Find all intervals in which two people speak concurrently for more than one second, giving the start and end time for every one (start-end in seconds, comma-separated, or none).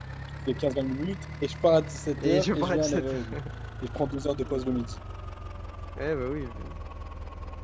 2.2-3.4